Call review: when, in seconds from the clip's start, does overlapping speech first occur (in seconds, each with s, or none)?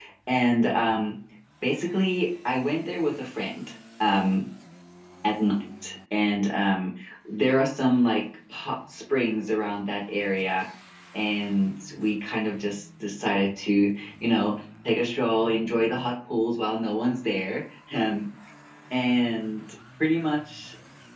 none